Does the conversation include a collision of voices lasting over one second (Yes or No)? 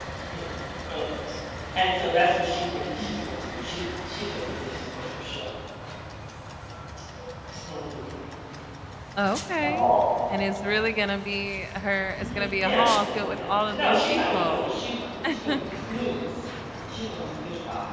Yes